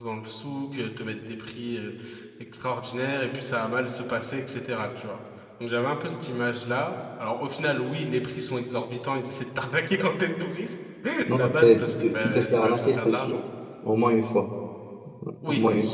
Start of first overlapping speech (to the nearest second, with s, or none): 11 s